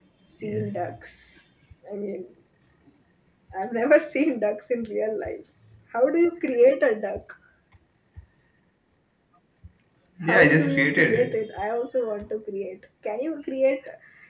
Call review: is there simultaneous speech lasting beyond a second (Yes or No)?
Yes